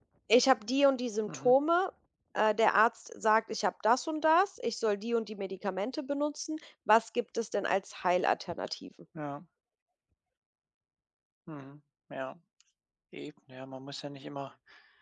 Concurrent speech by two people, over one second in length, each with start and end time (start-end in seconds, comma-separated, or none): none